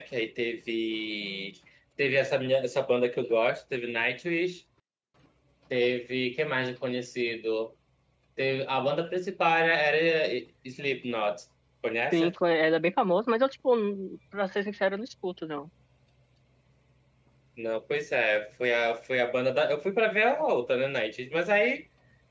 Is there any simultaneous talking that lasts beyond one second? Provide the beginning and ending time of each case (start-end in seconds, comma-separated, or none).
none